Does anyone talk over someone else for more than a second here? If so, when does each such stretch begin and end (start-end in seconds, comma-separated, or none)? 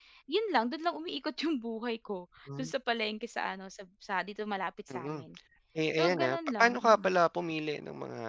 5.9-7.2